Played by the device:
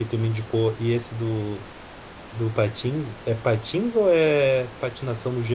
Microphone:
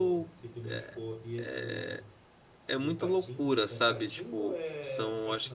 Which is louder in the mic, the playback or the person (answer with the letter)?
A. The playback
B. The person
B